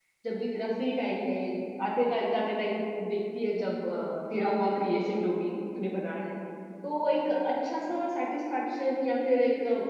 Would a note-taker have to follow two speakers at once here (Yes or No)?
No